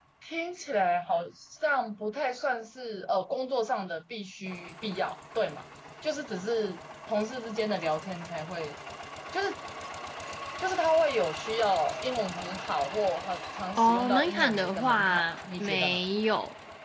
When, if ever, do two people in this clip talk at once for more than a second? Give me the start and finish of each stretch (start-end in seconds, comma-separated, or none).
13.8-16.0